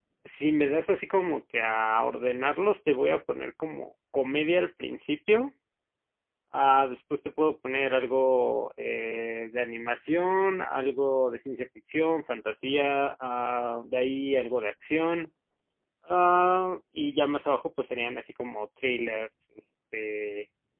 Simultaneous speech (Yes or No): No